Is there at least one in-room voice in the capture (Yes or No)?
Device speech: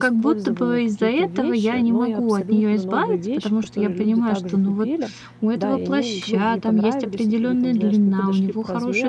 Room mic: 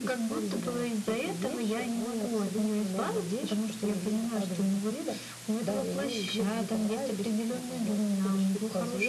No